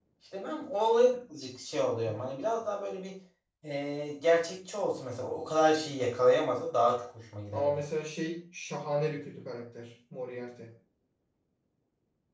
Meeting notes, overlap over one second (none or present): none